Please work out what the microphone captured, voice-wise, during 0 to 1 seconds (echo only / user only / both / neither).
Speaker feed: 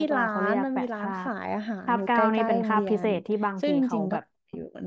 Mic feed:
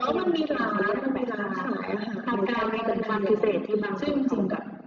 echo only